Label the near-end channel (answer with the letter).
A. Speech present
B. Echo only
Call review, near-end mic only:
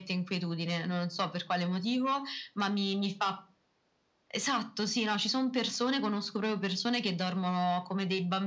B